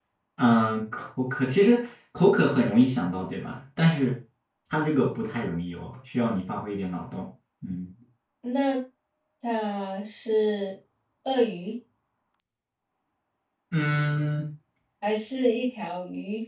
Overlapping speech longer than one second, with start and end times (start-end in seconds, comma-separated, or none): none